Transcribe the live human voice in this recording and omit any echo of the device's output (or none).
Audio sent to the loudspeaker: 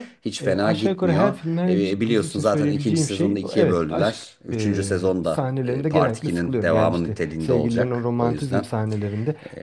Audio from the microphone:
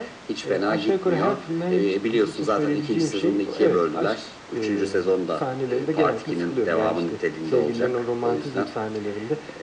none